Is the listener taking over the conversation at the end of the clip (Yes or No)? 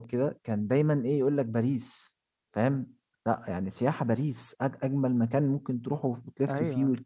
Yes